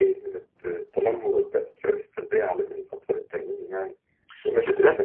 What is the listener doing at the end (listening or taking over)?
taking over